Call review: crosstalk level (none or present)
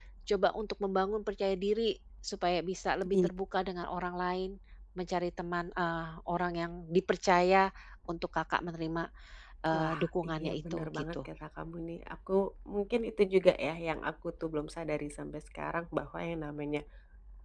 present